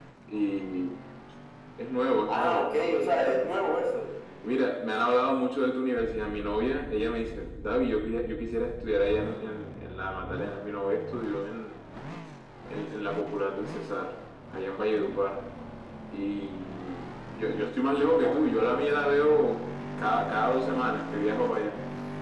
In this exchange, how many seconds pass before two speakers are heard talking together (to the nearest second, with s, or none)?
2 s